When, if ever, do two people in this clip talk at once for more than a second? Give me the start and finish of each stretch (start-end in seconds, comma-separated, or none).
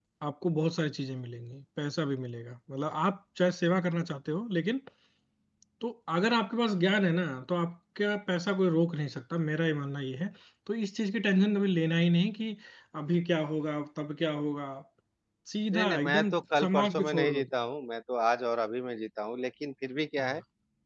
15.7-17.5